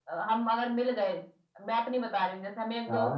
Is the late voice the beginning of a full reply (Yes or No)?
No